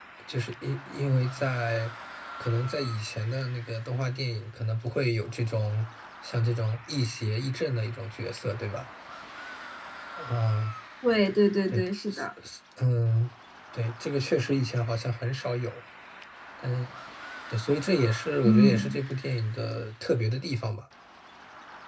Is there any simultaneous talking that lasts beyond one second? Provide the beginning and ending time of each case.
none

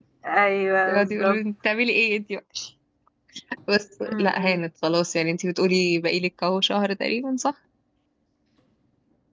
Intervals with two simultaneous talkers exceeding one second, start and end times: none

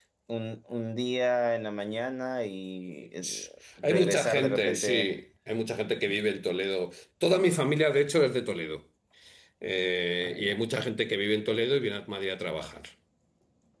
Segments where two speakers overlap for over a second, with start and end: 3.8-5.1

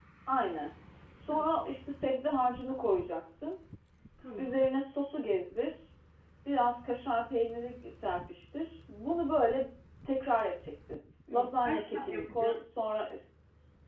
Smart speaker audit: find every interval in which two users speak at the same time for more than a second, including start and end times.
11.3-12.5

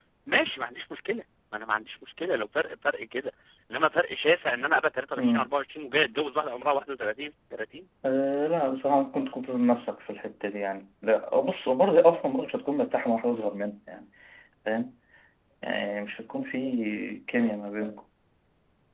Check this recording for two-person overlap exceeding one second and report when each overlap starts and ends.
none

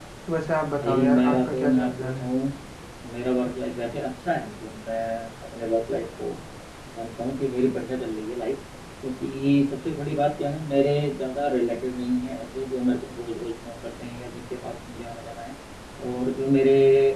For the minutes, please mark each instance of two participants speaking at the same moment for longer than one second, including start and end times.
0.8-2.2

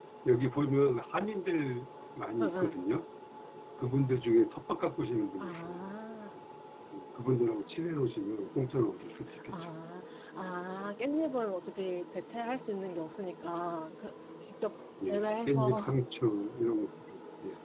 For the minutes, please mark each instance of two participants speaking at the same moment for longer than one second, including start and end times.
none

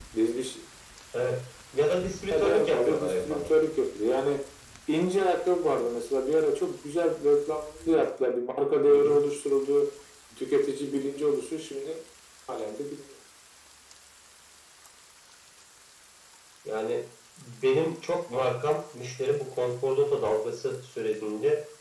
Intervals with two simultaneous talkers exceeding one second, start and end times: 2.3-3.6

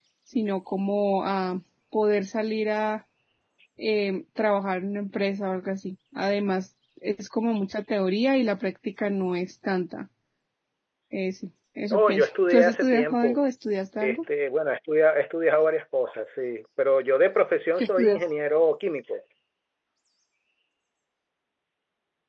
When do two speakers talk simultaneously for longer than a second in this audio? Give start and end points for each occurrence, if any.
11.9-13.4

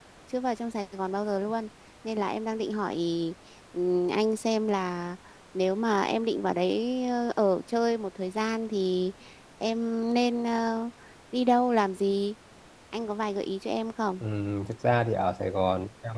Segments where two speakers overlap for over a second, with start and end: none

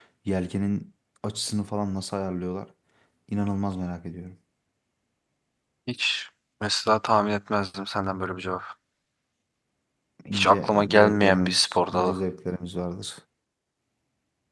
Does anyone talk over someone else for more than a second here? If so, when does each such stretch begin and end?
10.3-12.2

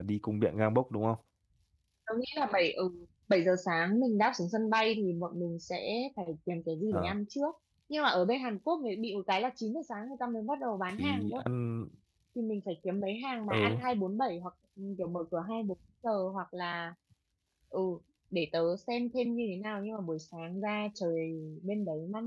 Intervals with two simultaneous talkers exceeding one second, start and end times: none

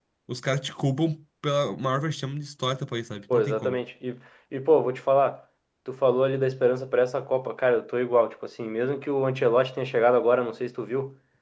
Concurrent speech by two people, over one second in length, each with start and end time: none

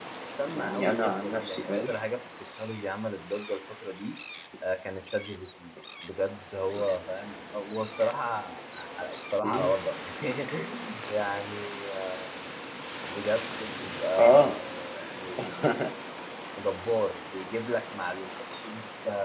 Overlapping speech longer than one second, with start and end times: 0.5-1.9

